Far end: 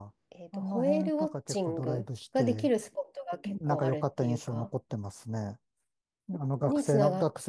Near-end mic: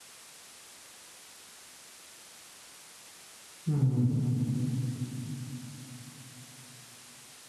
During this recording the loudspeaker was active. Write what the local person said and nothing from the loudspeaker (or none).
うん。